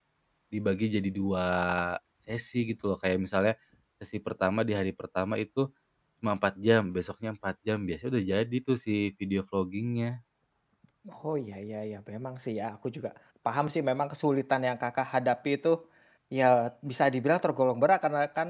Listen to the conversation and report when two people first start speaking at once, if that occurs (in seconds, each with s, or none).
none